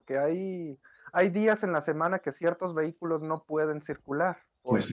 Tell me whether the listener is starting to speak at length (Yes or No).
Yes